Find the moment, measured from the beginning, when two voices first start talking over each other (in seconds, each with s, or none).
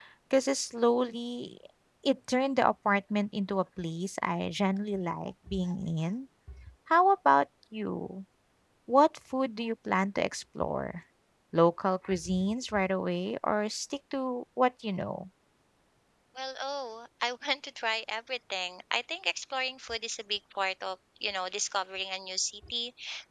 none